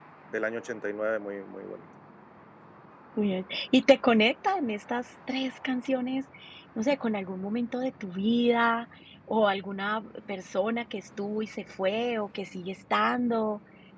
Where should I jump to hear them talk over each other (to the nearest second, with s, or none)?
none